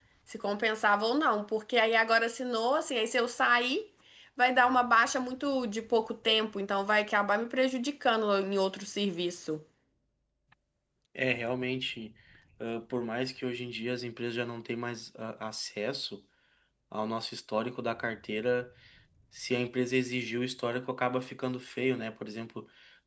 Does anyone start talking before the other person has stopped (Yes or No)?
No